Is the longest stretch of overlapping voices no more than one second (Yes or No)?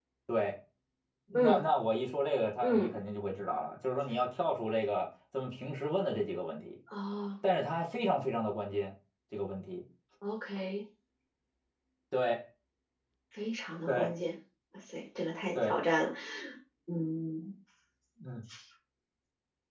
Yes